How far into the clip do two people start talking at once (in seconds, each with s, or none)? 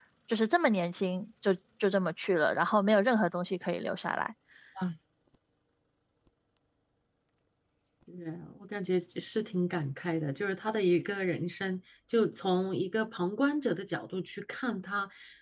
none